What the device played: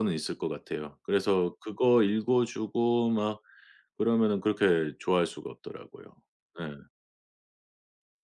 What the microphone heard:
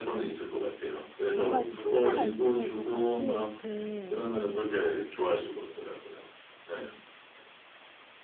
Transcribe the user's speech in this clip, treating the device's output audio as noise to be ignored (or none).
뭔가 이렇게 형제가 있으면 또 같이 이렇게